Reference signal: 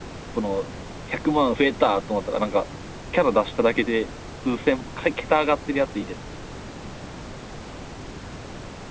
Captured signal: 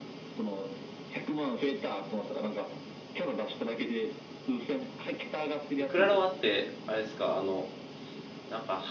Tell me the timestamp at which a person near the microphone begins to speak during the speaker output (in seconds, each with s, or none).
5.8 s